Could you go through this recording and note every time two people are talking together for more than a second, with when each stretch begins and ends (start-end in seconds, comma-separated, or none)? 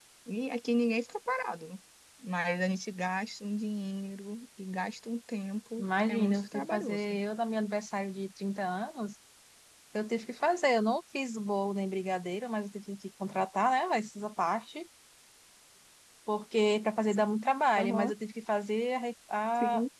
5.8-7.2